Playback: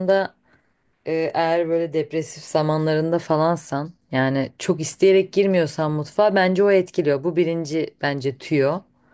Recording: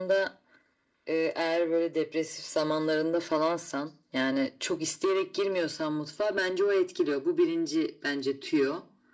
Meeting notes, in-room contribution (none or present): none